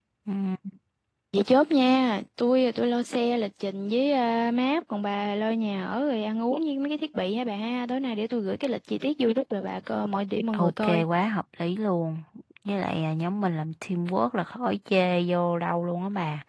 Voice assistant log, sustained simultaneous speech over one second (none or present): none